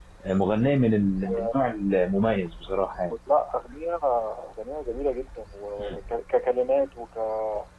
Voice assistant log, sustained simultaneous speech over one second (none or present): none